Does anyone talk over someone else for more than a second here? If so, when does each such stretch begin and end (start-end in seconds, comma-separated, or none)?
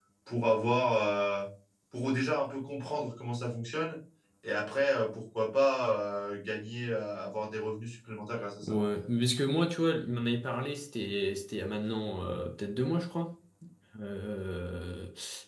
none